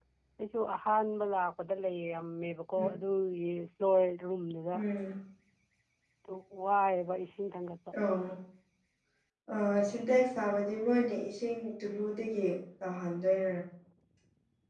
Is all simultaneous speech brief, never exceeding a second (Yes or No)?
Yes